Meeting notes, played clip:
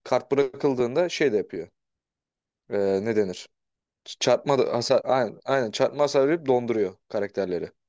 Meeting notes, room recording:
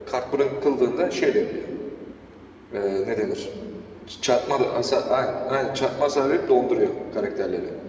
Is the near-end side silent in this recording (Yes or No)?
Yes